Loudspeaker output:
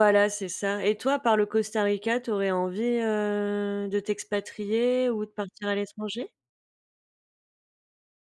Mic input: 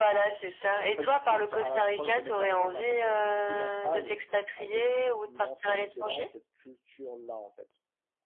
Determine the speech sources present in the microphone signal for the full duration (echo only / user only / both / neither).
both